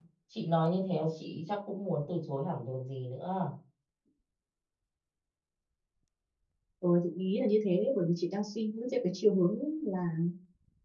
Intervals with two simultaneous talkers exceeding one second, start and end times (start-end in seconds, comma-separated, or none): none